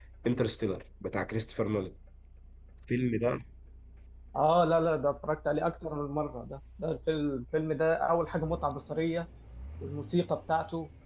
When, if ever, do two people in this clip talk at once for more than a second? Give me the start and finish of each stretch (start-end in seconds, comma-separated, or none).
none